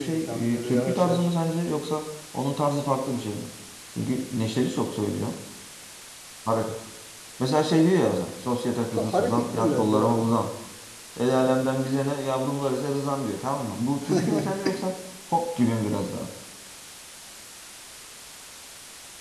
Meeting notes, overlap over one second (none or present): present